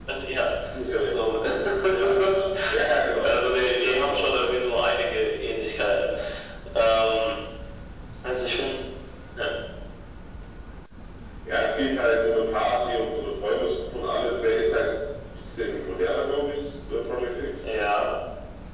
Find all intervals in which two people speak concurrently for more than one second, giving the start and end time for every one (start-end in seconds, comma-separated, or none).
3.2-4.5